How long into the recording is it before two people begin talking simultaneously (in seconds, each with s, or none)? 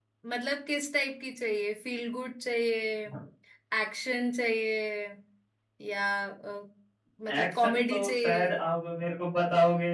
7.4 s